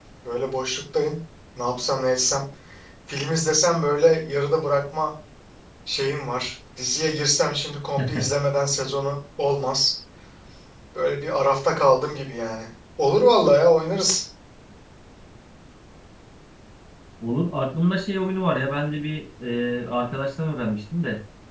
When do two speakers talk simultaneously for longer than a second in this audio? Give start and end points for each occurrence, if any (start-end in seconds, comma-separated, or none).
none